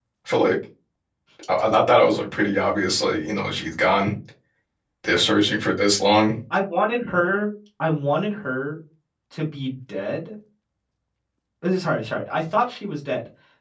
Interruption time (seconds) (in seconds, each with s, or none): none